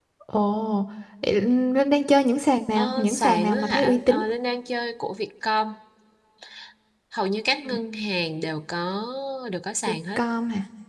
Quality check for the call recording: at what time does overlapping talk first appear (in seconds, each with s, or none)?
2.8 s